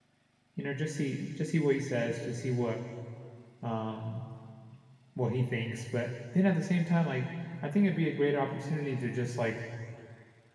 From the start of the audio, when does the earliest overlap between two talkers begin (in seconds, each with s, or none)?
none